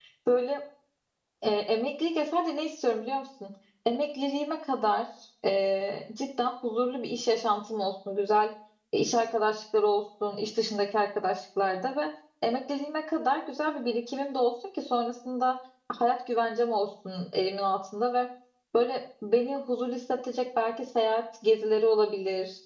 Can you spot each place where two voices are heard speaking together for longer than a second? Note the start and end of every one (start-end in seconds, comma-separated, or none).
none